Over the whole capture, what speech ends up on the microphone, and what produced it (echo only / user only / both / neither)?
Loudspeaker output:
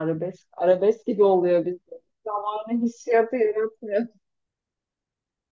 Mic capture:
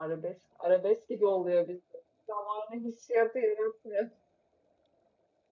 echo only